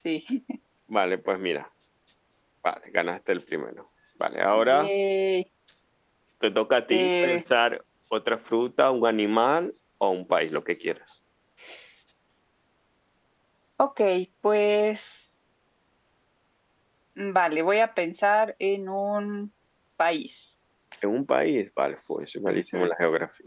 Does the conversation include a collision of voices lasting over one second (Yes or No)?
No